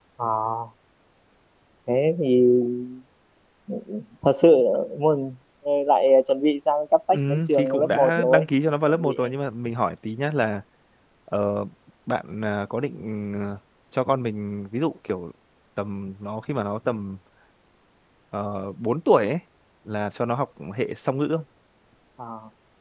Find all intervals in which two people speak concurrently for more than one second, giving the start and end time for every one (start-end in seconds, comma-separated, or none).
7.1-8.4